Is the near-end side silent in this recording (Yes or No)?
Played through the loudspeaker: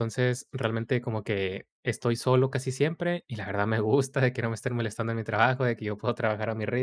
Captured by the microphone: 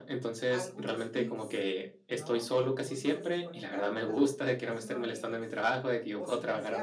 No